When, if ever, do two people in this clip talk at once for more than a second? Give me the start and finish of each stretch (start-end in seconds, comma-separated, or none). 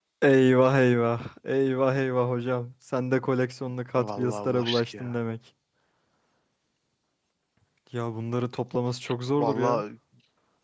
4.0-5.2